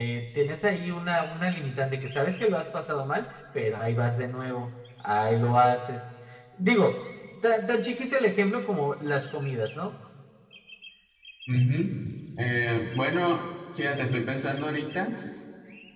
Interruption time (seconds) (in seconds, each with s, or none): none